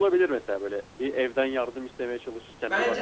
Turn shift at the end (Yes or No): Yes